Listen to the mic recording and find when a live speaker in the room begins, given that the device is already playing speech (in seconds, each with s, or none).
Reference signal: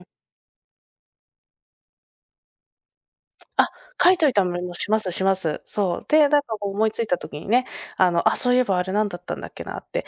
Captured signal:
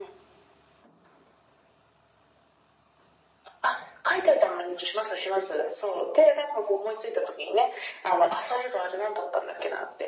none